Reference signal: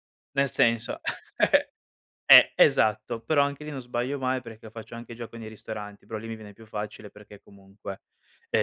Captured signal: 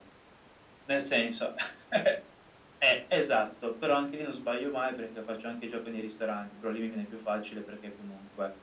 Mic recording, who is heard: echo only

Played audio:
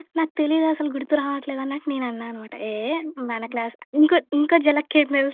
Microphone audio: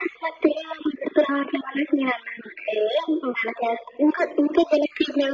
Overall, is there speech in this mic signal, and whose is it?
echo only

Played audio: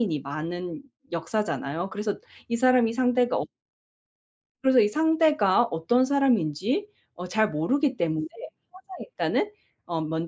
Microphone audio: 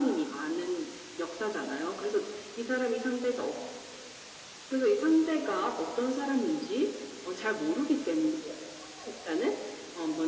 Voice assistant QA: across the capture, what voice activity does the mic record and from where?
echo only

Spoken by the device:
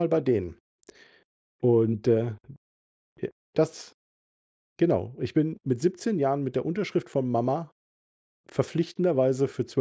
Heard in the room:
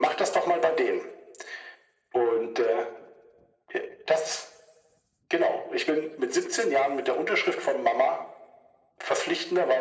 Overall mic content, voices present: echo only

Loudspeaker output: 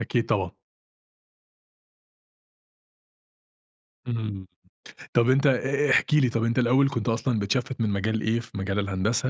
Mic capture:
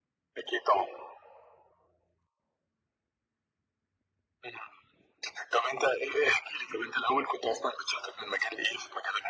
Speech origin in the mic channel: echo only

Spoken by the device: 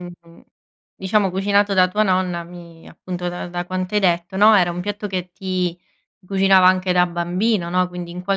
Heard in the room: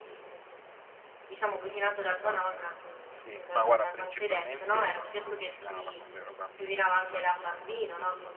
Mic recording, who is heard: both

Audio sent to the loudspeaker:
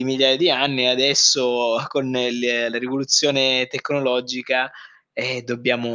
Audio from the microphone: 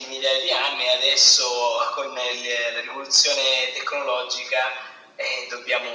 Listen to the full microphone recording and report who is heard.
echo only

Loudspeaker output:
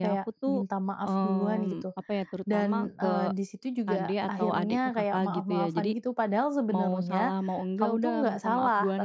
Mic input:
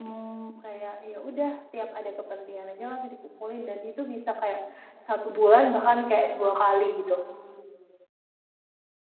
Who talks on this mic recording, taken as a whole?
user only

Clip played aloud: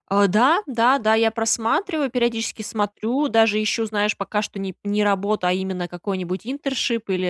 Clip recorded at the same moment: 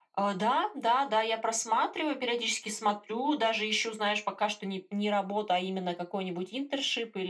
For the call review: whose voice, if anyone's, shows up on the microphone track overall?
echo only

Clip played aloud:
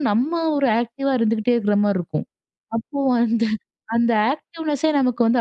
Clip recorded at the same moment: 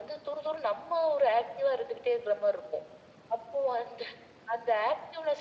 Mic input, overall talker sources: echo only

